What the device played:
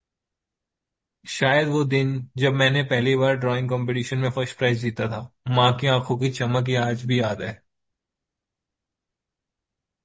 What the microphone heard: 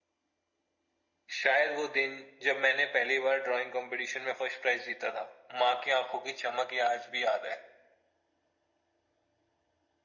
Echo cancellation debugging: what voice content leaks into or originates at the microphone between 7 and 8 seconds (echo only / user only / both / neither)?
echo only